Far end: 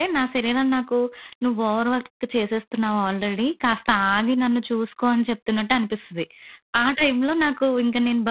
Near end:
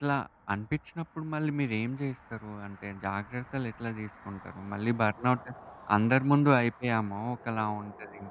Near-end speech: present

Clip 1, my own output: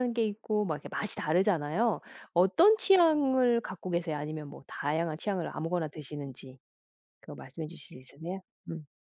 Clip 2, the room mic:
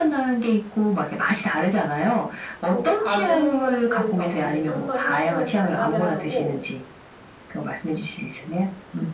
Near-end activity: present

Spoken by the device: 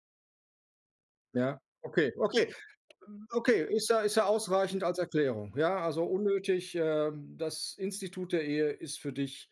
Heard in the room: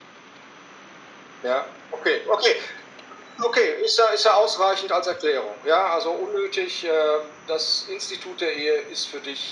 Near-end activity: none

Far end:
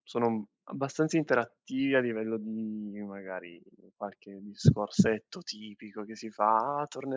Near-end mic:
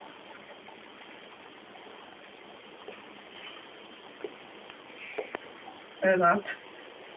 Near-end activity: present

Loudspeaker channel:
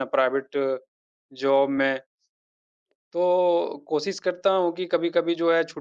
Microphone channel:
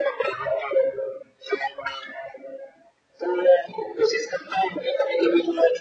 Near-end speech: none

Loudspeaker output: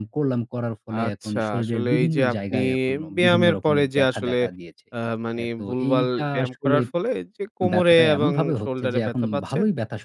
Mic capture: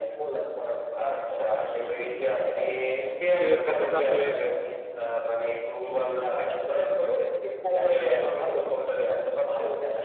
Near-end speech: present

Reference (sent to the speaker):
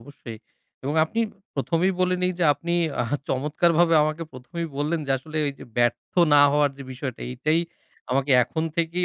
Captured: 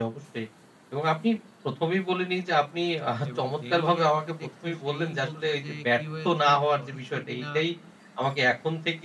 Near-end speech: present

